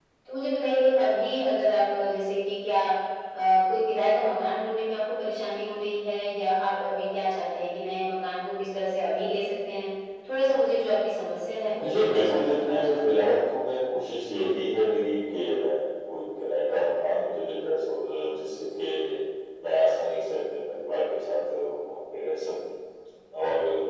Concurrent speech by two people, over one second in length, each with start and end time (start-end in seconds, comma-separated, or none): 11.8-13.2